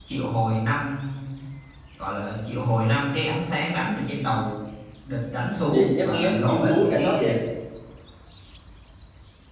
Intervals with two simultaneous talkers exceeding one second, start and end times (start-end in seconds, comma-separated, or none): 5.7-7.3